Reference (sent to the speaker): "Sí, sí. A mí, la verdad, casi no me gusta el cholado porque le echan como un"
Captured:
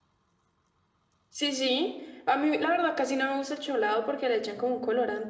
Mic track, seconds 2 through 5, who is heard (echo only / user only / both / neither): echo only